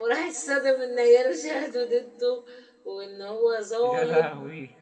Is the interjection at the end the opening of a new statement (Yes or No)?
No